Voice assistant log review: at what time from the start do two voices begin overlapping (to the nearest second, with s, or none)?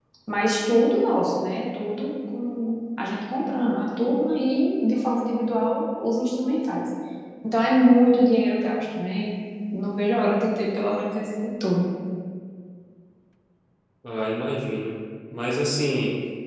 none